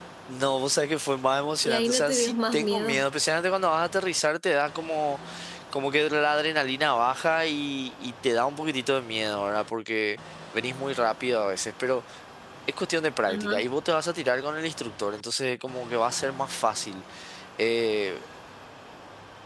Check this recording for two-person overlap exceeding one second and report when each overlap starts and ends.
1.6-3.0

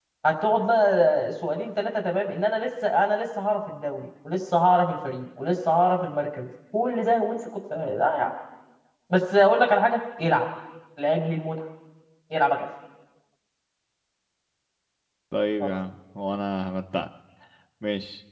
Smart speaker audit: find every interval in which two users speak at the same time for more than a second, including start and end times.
none

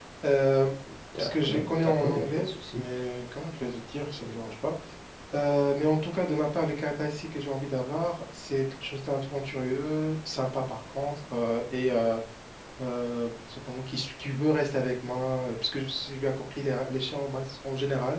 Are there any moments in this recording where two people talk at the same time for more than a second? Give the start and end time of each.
1.2-2.8

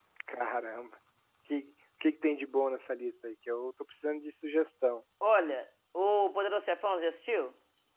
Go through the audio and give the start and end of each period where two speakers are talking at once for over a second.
none

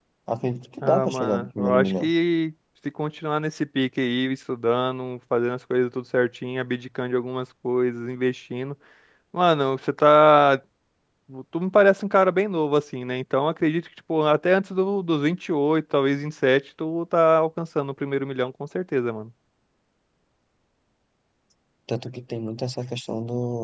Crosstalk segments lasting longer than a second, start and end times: 0.8-2.1

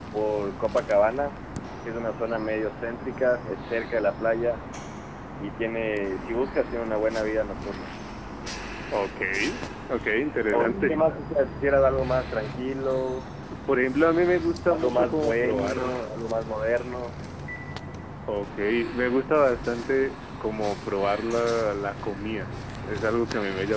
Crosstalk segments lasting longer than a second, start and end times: 14.7-16.0

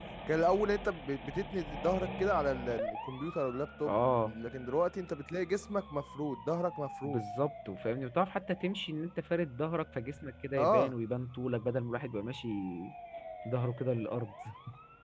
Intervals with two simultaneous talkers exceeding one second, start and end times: none

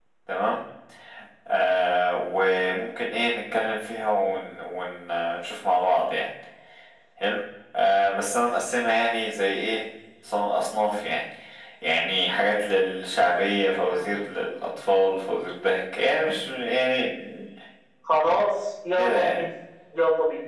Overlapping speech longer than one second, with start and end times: none

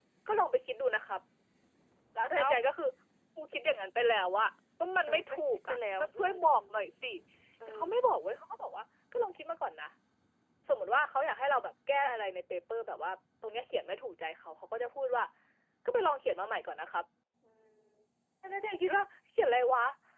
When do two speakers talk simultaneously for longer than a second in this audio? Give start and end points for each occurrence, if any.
5.1-6.6

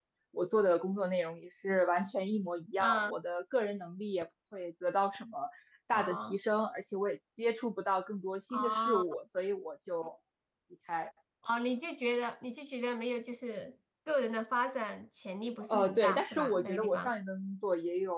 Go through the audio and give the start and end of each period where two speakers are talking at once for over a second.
15.7-17.1

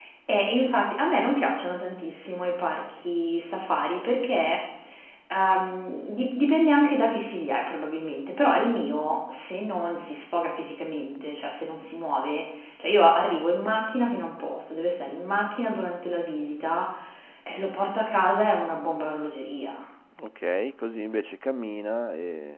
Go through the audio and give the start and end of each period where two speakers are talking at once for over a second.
none

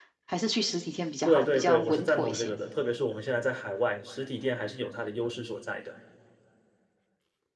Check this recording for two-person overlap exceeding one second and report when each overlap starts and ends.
1.2-2.5

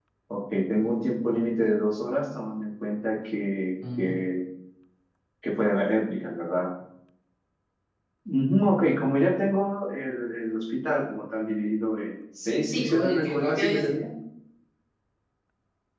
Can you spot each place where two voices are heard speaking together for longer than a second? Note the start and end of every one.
12.7-13.9

